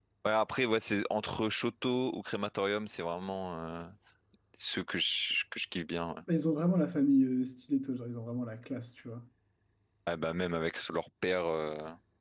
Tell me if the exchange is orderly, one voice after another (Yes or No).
Yes